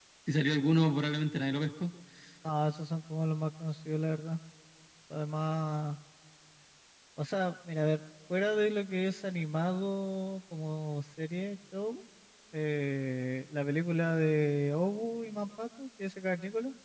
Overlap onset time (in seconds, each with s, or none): none